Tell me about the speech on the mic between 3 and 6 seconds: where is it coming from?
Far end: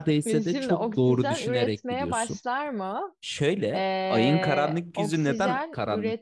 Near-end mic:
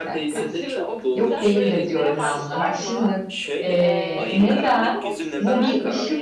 both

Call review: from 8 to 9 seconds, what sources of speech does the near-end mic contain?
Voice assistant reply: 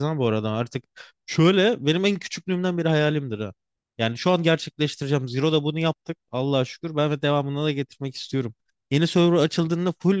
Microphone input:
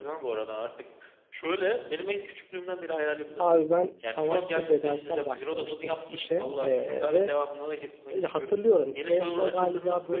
both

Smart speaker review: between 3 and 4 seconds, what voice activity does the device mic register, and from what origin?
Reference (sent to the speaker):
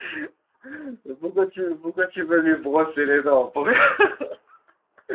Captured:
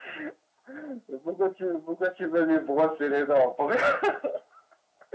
echo only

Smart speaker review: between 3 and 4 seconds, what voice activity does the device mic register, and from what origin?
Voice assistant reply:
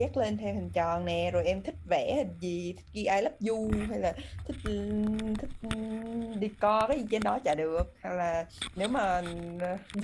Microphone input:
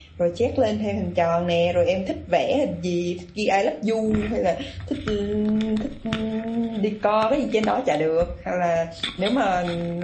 echo only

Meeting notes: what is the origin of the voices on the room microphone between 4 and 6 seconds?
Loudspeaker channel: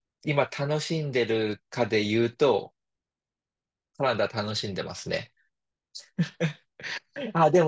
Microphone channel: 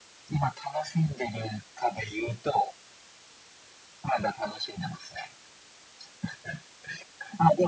echo only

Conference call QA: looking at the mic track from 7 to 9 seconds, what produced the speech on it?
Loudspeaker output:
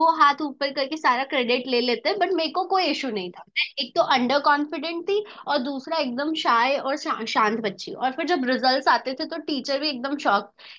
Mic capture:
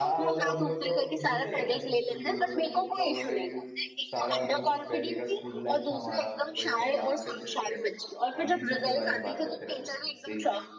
both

